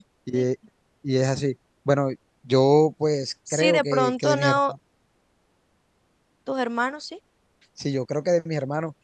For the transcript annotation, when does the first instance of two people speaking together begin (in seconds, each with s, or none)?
3.5 s